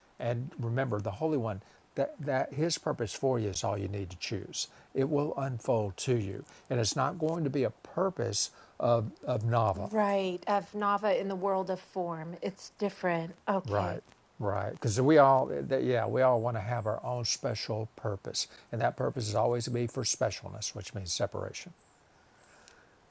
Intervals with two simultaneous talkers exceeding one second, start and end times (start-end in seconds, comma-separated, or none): none